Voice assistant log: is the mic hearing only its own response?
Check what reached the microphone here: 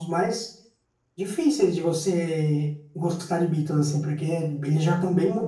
Yes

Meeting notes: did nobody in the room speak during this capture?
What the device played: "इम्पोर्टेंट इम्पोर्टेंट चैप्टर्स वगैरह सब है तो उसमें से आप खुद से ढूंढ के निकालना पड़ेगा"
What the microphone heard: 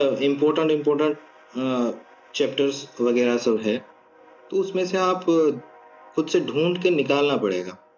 Yes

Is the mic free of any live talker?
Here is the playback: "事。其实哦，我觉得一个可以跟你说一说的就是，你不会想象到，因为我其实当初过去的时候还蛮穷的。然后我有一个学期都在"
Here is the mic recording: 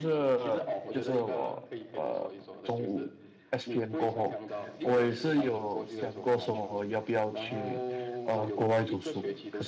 No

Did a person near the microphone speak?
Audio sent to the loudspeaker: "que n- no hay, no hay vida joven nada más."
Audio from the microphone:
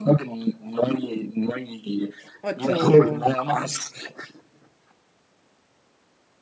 Yes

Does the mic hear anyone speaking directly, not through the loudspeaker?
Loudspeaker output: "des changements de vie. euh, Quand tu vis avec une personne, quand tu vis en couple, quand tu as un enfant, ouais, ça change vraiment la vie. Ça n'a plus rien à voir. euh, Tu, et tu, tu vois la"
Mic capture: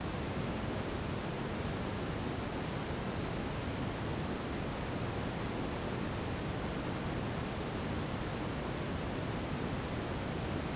No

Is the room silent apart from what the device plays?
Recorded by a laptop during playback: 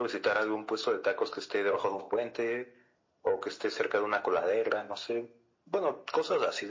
Yes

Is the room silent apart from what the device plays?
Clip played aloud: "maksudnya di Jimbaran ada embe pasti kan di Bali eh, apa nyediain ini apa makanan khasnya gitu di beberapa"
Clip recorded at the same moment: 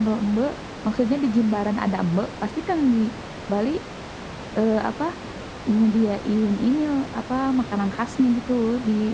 Yes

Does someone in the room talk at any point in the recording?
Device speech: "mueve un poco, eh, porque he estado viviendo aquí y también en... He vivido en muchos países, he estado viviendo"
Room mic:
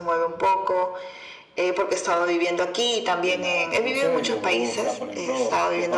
Yes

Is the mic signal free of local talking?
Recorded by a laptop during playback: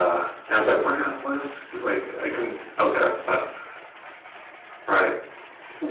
Yes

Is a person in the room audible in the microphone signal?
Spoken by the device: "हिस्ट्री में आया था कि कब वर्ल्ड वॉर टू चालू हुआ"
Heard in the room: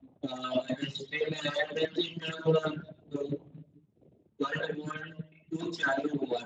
No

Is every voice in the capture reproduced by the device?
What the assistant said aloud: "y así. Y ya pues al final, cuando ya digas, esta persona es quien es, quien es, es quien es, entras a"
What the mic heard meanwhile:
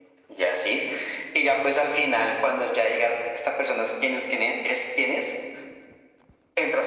Yes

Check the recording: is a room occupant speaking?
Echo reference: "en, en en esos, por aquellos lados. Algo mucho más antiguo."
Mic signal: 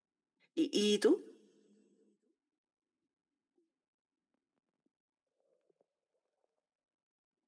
Yes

